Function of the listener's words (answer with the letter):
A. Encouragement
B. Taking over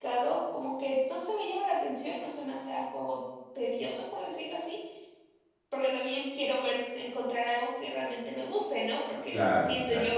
A